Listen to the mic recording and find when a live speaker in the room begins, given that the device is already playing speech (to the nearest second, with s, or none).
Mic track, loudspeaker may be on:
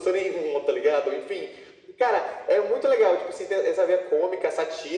none